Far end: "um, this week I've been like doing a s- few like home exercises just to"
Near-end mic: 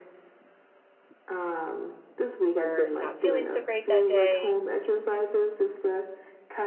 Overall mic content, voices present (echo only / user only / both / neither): both